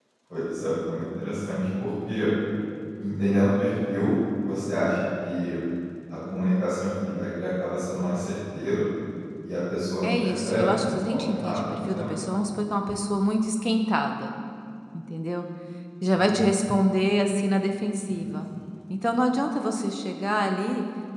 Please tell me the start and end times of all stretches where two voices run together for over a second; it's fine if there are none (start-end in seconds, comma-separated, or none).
10.0-12.1